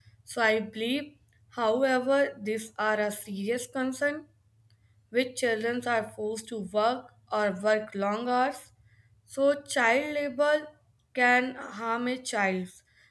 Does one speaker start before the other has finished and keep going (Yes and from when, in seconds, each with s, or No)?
No